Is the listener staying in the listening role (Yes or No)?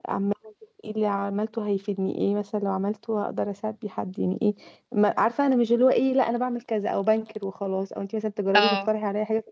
Yes